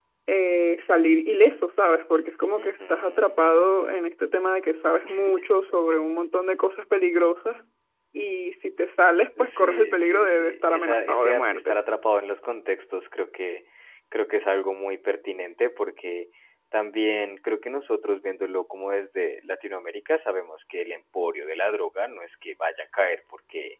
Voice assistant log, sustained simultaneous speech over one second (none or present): present